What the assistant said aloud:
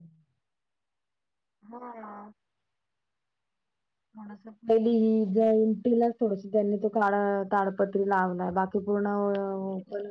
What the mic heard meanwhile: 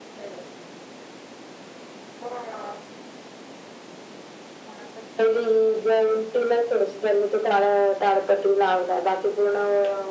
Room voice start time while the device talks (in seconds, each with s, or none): none